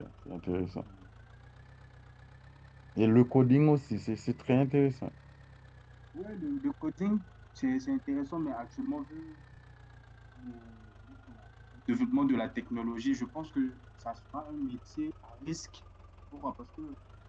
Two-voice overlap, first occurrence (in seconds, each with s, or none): none